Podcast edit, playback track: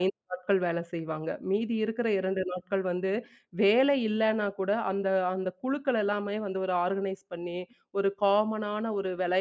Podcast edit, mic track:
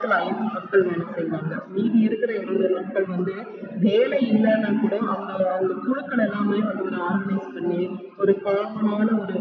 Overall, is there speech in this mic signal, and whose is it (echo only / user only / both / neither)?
echo only